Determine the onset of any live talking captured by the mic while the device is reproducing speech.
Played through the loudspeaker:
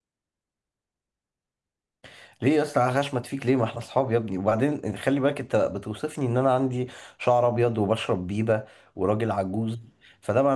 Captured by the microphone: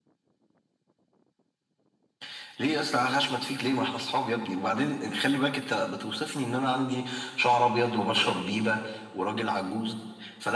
none

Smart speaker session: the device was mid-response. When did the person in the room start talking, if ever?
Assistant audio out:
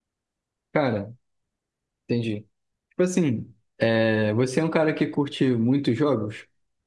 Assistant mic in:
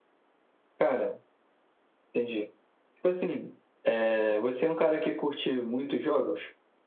none

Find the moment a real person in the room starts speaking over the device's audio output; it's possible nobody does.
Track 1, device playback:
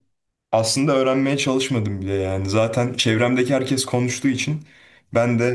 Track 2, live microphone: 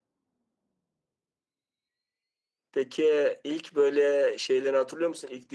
3 s

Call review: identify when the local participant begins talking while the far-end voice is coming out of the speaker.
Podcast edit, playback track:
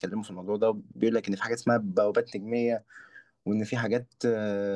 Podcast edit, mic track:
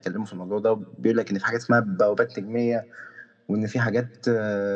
none

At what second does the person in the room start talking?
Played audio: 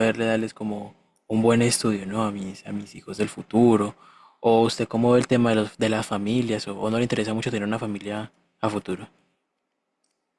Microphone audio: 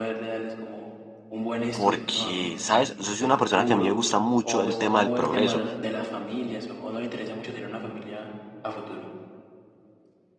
2 s

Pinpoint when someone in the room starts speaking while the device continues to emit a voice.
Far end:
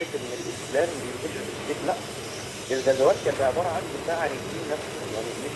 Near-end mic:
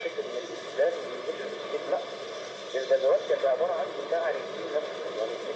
none

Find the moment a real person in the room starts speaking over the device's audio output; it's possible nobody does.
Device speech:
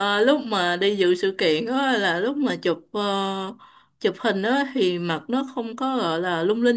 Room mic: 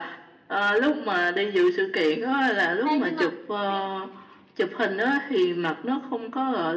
3 s

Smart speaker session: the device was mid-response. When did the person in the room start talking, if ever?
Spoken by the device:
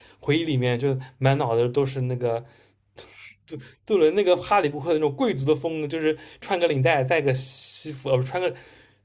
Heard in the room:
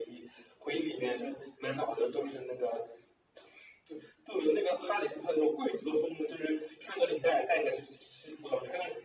none

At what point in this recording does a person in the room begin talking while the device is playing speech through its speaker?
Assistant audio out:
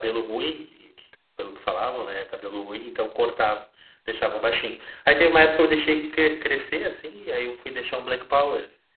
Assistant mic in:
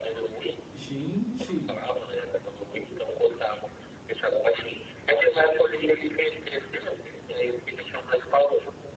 1 s

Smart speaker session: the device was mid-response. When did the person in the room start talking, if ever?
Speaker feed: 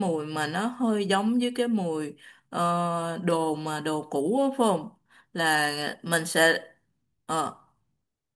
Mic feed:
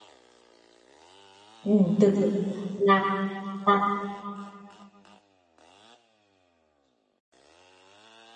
2 s

